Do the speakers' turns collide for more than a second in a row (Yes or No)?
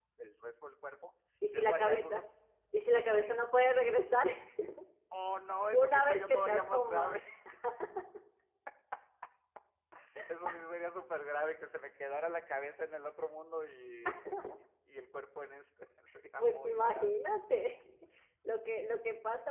Yes